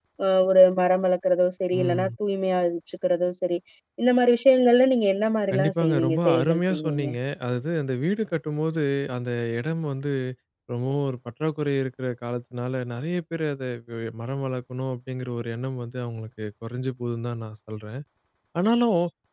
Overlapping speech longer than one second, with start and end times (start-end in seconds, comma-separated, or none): 5.5-7.1